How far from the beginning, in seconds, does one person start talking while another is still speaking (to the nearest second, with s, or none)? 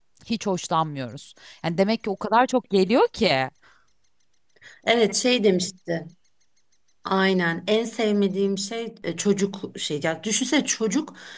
none